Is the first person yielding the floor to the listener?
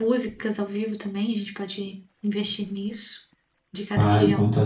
Yes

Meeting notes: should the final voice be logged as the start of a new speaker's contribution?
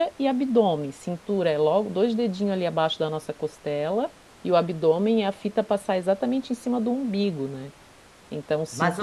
Yes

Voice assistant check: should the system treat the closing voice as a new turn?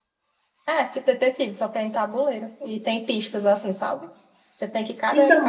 No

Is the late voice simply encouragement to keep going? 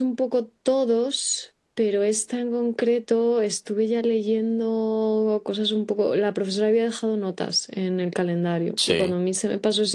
Yes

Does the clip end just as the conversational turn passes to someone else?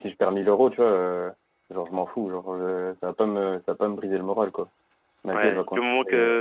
Yes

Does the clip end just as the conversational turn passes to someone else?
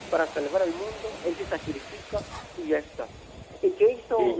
No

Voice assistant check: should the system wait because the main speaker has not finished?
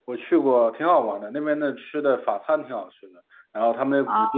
Yes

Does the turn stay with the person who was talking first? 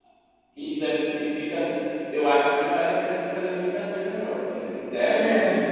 Yes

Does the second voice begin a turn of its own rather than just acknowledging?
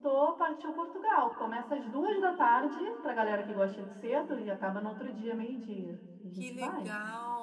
Yes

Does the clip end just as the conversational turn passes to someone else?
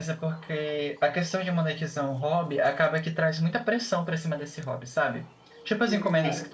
No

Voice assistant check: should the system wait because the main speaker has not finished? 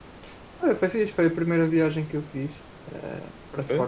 Yes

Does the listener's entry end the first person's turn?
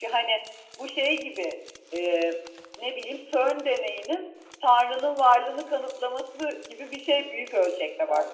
Yes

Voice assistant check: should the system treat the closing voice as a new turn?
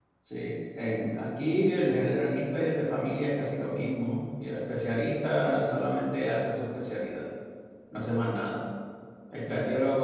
No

